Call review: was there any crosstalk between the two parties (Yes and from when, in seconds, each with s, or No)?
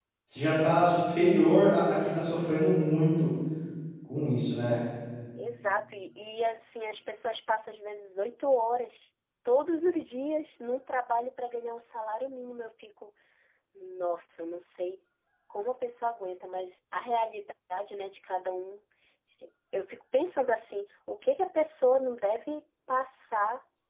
No